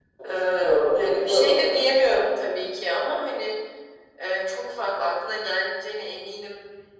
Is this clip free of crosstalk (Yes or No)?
No